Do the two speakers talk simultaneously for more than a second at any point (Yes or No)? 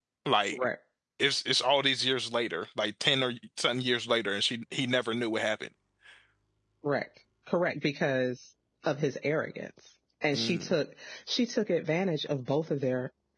No